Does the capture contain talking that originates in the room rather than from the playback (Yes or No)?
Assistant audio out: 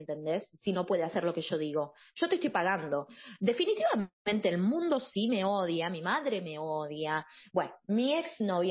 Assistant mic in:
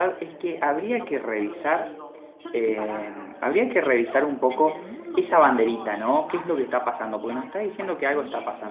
Yes